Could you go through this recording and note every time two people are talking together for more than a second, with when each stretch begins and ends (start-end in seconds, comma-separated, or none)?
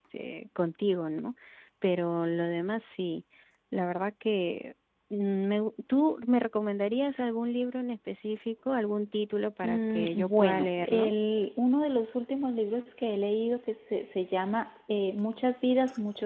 9.6-11.1